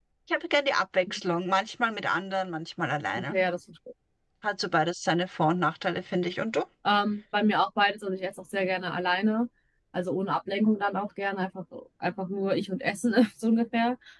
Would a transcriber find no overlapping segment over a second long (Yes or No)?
Yes